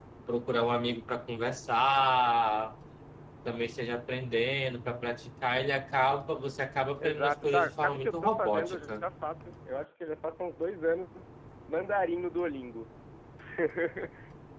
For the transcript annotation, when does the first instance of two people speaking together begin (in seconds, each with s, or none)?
7.0 s